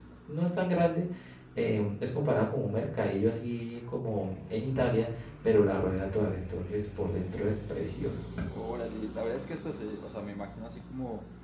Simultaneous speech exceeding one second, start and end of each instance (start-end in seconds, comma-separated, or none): none